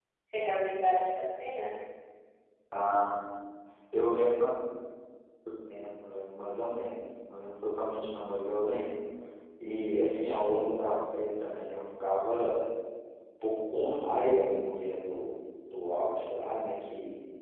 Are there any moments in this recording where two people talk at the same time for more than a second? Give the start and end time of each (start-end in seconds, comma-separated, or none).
none